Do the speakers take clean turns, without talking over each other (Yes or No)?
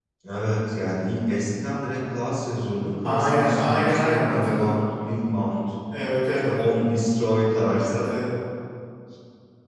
No